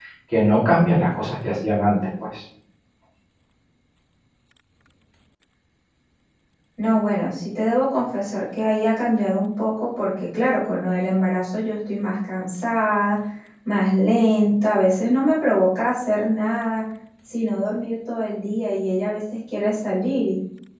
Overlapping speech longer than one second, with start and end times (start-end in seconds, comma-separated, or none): none